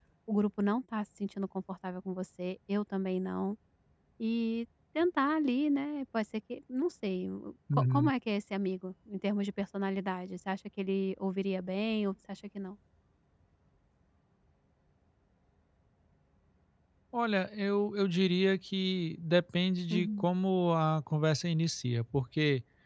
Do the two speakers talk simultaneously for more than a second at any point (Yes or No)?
No